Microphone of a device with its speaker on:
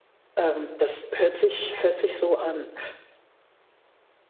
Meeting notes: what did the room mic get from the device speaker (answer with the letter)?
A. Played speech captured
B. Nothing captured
B